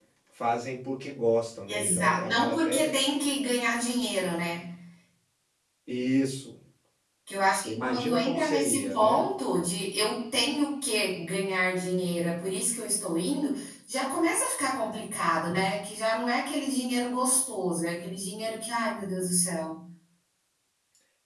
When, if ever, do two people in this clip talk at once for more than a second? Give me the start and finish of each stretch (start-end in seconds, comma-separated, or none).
1.7-3.0, 7.6-9.2